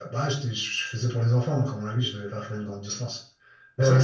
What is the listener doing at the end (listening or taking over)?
taking over